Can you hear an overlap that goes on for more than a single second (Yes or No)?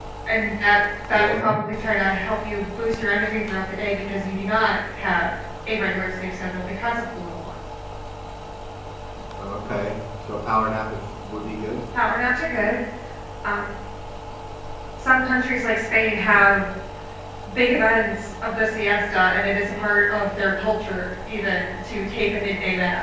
No